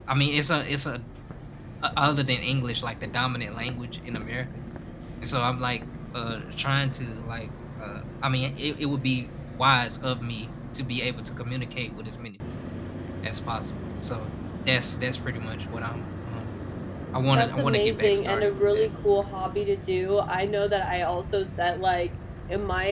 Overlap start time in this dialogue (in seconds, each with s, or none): 17.3 s